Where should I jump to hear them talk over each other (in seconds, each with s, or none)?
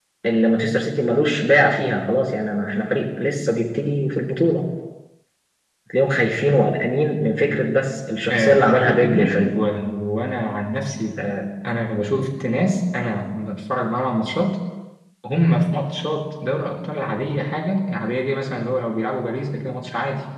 8.3 s